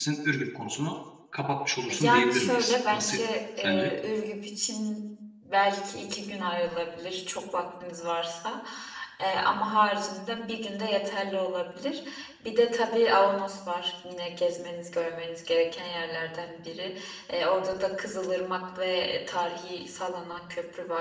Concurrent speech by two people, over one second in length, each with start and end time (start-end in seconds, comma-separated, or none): 1.9-3.2